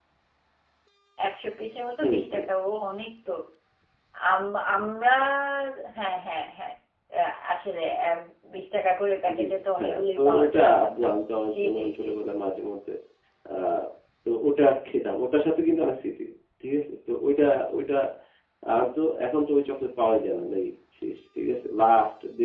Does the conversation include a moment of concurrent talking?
Yes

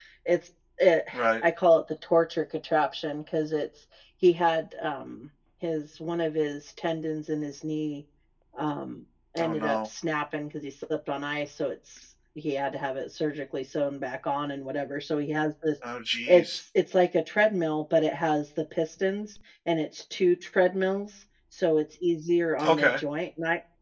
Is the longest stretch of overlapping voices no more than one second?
Yes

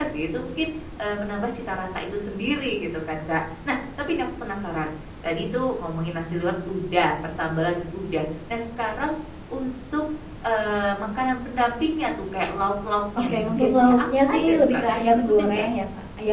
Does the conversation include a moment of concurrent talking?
Yes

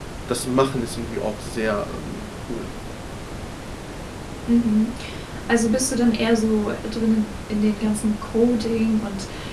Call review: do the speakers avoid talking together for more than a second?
Yes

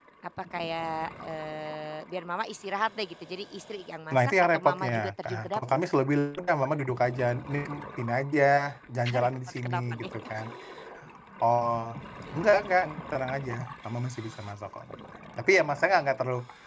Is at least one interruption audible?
Yes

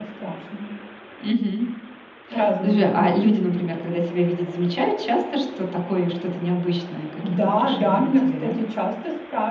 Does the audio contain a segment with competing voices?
Yes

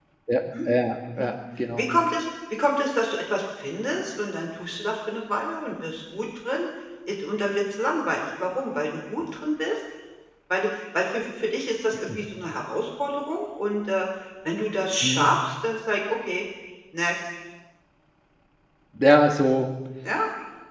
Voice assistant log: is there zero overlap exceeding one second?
Yes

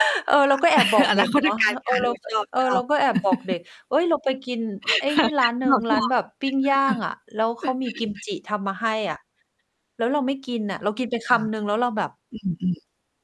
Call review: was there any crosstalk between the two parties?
Yes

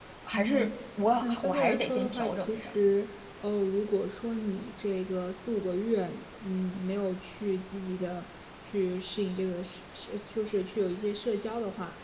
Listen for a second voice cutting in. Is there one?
Yes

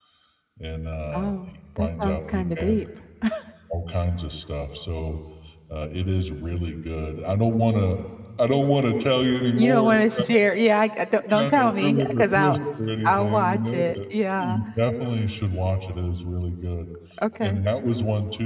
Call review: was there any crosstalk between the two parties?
Yes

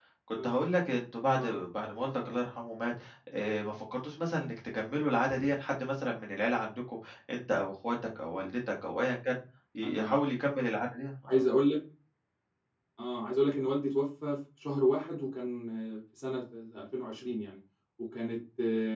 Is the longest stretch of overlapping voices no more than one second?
Yes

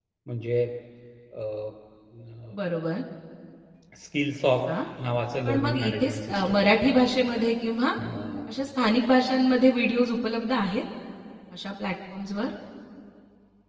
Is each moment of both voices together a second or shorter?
No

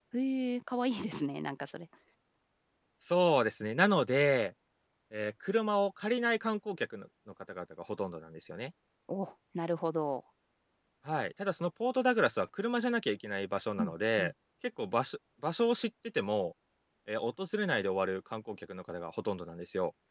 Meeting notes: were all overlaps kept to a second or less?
Yes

